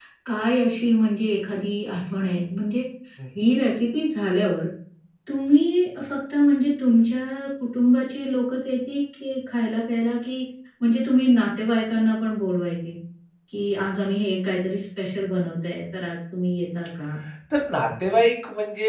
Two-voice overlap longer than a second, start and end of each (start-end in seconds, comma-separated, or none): none